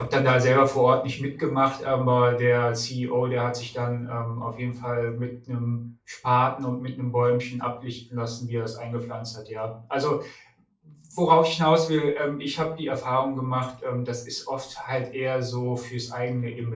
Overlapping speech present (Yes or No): No